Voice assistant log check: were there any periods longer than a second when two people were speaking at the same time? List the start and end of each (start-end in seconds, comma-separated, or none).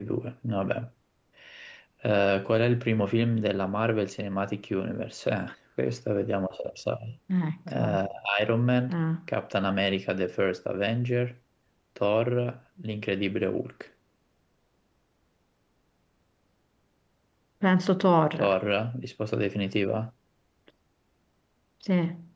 none